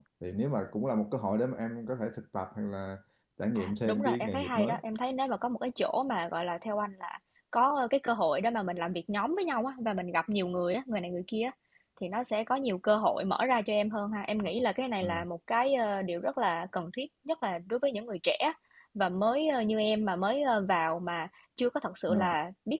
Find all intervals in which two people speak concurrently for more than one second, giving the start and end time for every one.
3.5-4.8

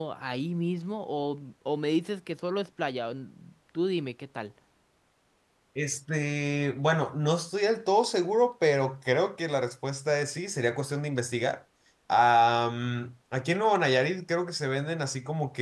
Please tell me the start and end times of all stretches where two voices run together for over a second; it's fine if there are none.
none

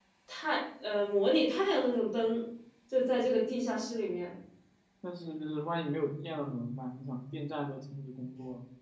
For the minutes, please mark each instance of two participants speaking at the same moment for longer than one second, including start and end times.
none

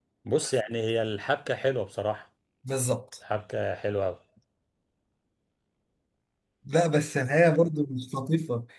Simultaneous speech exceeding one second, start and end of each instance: none

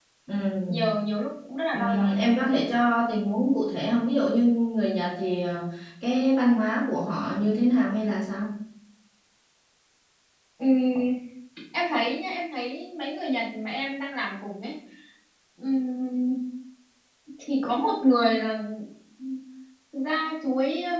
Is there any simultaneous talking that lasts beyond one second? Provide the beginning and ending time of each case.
none

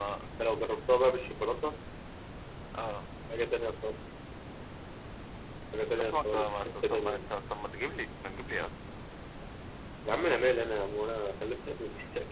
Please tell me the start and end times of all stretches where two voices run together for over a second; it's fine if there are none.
5.9-7.2

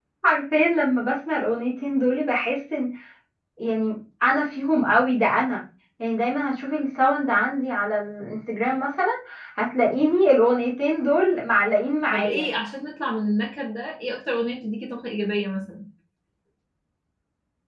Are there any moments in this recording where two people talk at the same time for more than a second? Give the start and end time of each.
none

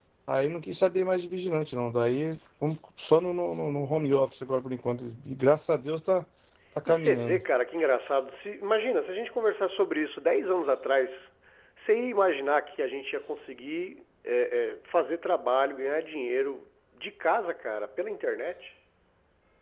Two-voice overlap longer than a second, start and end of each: none

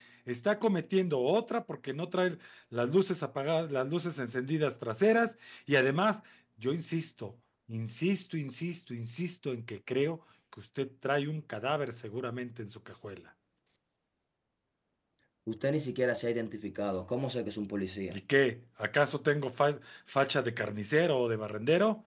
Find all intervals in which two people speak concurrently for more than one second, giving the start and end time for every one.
none

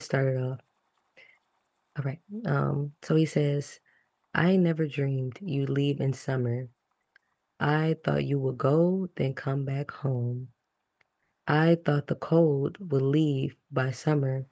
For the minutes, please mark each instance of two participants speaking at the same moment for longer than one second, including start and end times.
none

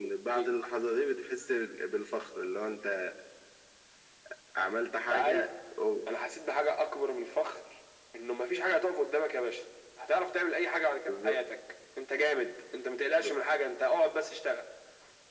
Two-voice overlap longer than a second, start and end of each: none

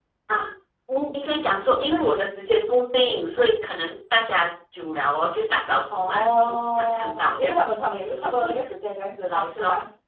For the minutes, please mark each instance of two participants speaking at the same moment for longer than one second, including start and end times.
5.9-7.6

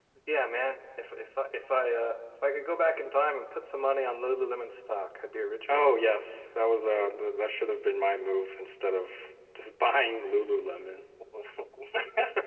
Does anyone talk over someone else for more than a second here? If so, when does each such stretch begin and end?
none

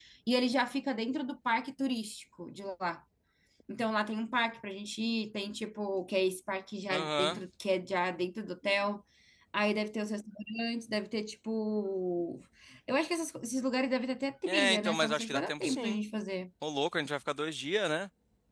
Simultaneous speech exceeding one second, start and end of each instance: 14.5-16.0

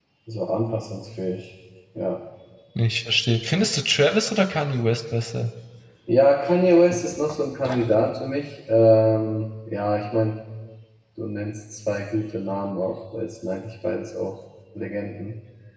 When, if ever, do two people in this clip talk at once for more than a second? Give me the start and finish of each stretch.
none

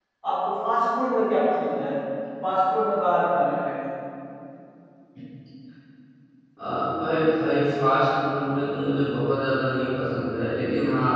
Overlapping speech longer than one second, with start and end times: none

